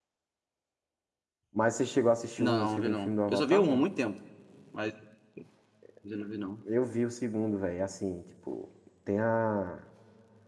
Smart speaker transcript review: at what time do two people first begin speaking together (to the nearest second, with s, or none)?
2 s